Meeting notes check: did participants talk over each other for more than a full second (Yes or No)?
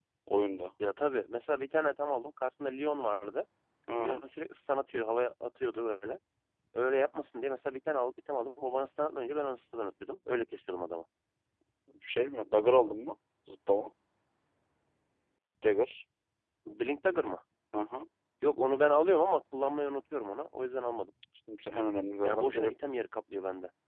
No